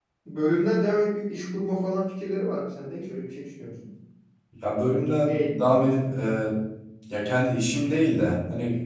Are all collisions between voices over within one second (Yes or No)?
Yes